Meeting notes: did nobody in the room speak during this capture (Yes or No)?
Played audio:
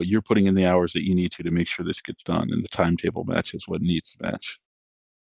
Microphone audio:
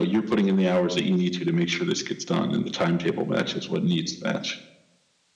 Yes